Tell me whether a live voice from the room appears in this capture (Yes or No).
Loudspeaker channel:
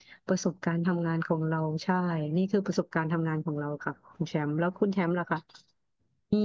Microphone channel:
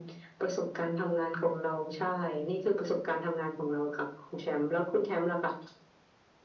No